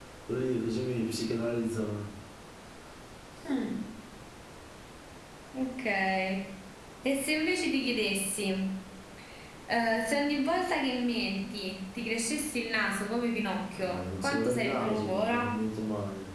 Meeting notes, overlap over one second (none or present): present